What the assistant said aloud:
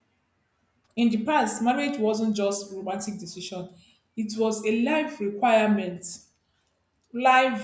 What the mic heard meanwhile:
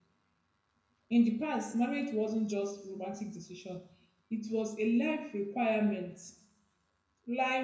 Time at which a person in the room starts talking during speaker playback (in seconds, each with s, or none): none